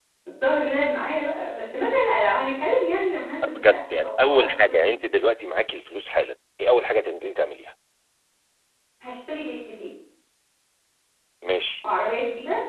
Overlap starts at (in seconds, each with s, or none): 3.4 s